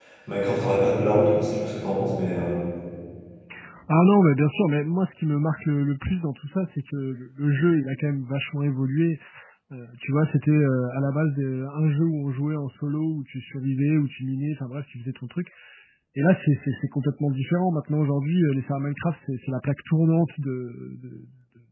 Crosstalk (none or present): none